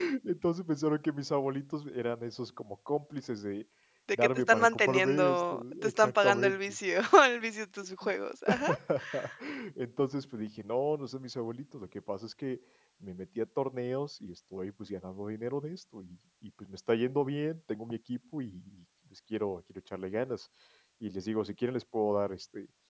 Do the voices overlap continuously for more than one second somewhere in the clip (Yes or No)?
Yes